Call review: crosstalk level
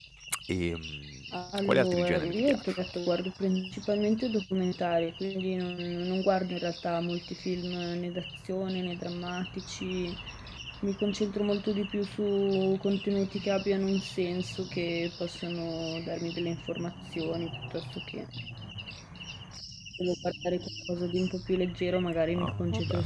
present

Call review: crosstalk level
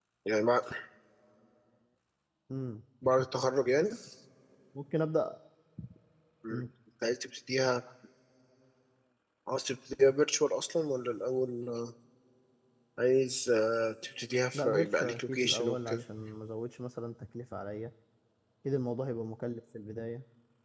present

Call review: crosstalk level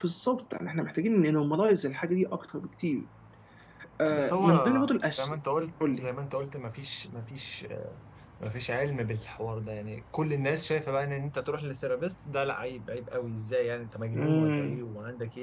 present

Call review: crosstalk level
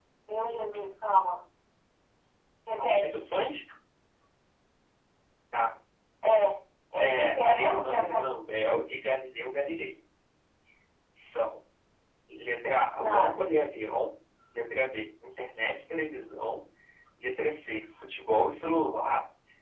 present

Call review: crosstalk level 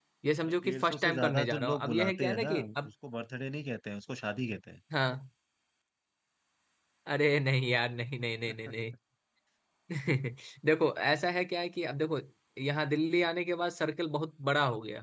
present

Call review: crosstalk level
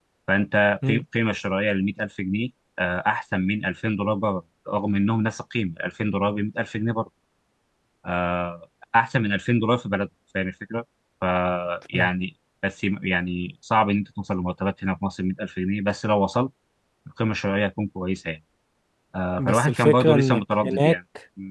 present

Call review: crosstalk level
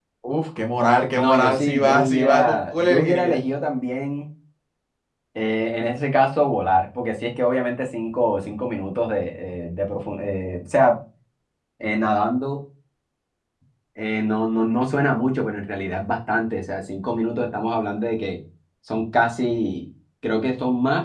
present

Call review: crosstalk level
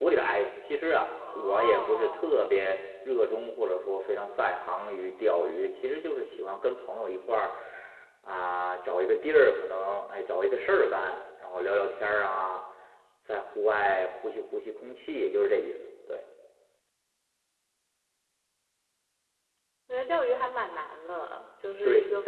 present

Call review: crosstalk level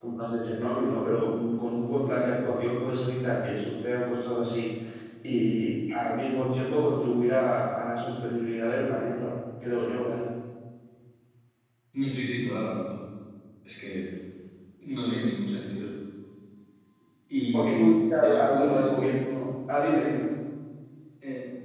present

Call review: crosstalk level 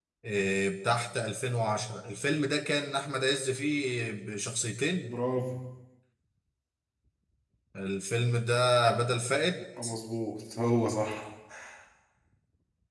none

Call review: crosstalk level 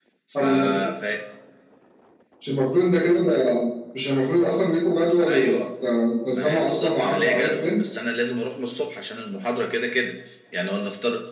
present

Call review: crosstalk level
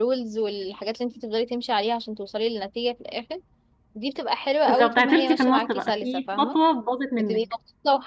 present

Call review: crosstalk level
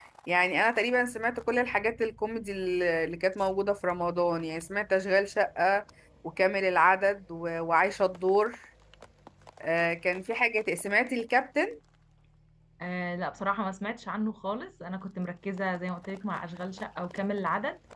none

